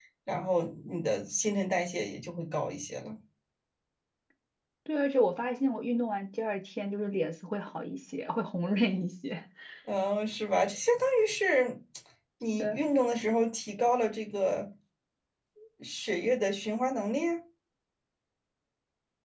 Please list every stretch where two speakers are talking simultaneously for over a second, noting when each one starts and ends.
none

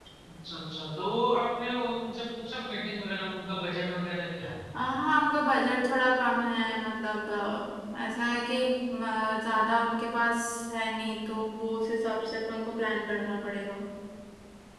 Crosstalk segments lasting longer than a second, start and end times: none

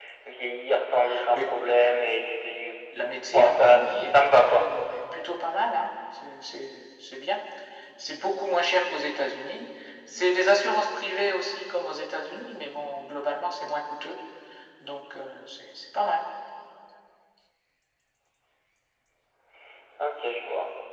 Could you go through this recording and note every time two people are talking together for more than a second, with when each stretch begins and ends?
3.3-4.7

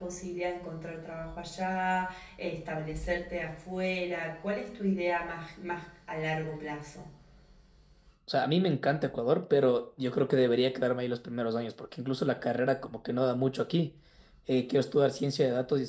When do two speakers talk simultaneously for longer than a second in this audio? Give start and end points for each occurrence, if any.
none

